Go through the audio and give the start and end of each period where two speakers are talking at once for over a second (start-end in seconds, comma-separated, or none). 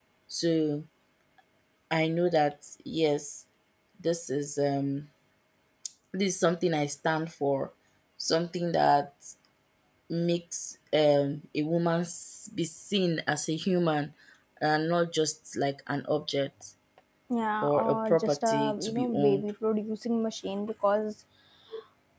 17.6-19.4